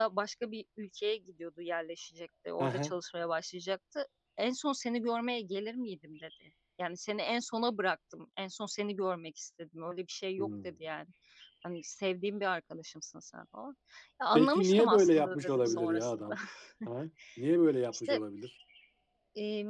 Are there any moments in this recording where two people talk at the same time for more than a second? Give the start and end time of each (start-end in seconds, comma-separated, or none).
14.3-16.3